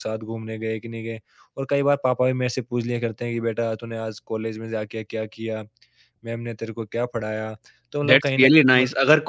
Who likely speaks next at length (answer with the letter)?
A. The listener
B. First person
A